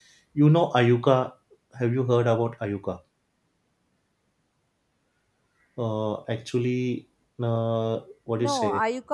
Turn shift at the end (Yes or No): Yes